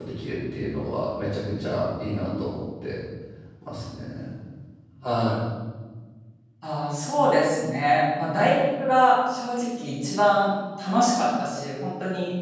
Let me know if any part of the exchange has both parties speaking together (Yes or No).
No